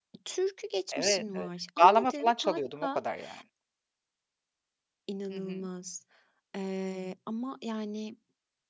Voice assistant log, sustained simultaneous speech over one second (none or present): present